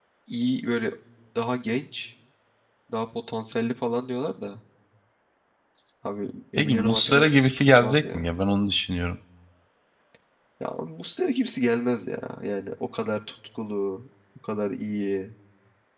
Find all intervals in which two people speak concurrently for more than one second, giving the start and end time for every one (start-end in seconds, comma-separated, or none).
6.6-8.2